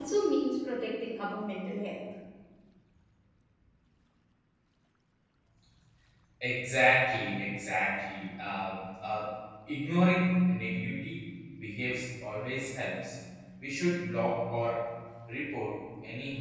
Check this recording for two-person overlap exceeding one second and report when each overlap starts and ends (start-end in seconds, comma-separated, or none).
none